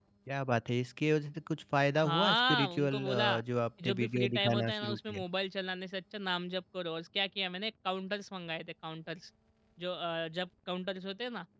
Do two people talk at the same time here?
Yes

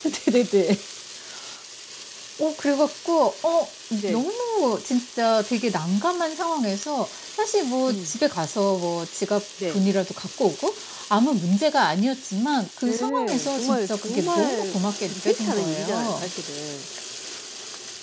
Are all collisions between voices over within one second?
No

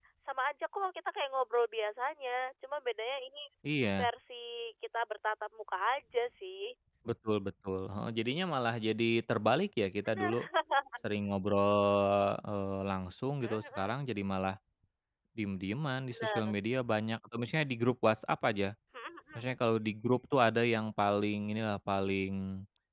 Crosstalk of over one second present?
No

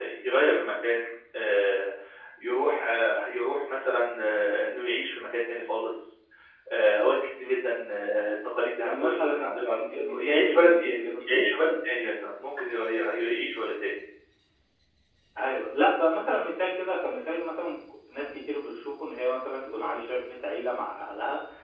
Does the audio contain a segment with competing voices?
Yes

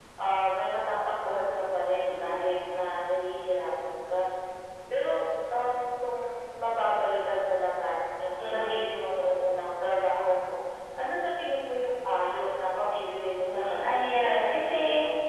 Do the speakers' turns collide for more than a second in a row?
Yes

